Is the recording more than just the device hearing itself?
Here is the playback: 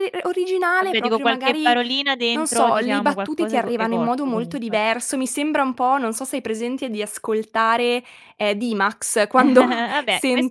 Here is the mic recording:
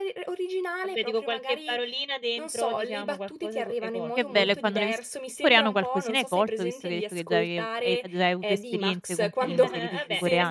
Yes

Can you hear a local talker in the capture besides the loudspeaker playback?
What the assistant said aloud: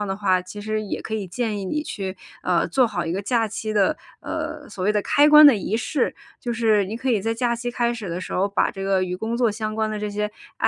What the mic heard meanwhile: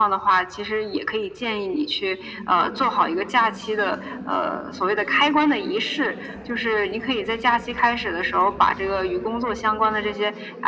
Yes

